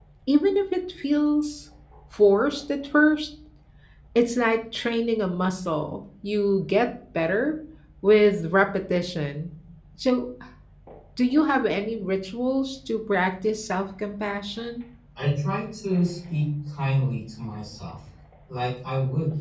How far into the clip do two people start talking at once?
none

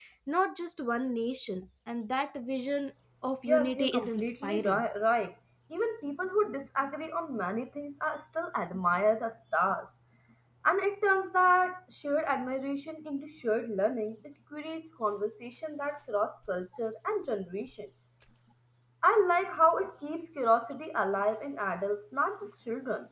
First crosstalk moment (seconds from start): 3.5 s

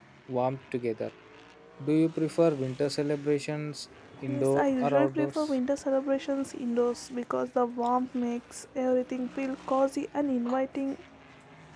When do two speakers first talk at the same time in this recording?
4.1 s

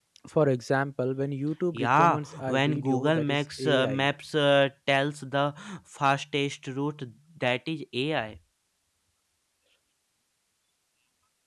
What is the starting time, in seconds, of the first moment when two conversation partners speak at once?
1.7 s

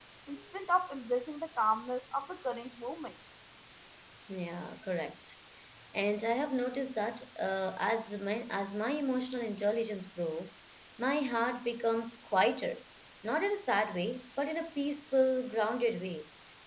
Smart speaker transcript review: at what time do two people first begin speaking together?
none

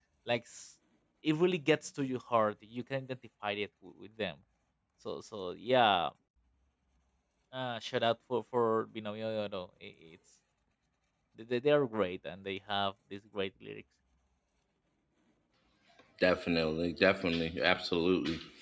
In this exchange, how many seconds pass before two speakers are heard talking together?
none

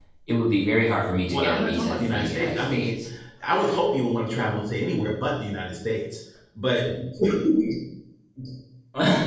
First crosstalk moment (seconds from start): 1.3 s

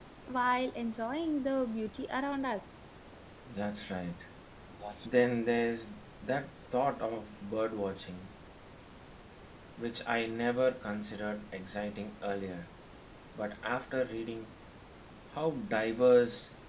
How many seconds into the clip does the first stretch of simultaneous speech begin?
none

